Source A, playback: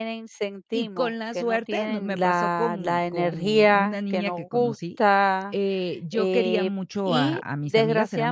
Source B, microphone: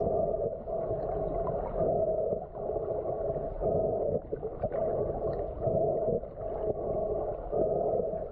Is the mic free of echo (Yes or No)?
Yes